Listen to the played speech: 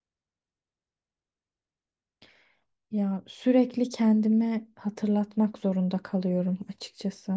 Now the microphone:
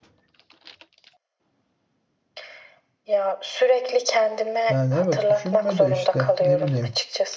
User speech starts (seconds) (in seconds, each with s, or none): 4.7 s